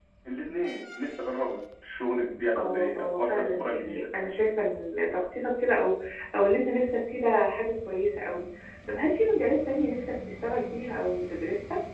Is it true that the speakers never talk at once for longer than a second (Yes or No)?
No